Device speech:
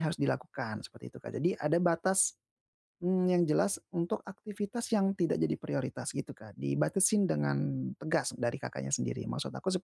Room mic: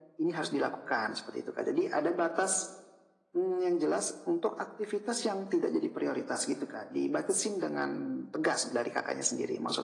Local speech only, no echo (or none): none